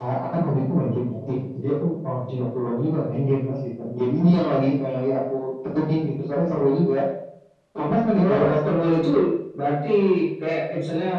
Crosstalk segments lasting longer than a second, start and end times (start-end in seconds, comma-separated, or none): none